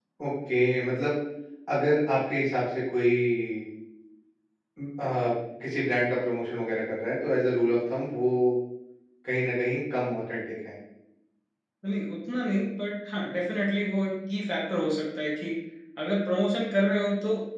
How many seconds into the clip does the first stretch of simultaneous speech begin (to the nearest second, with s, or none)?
none